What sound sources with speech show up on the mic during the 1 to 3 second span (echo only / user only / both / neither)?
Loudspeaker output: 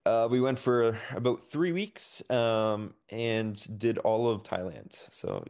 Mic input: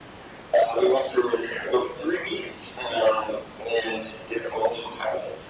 echo only